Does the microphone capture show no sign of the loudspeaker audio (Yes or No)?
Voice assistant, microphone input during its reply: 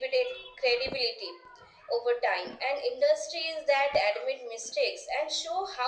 No